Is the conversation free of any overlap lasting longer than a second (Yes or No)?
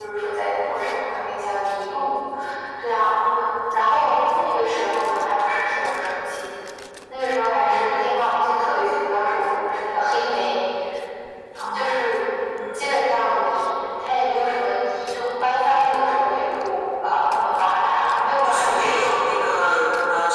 No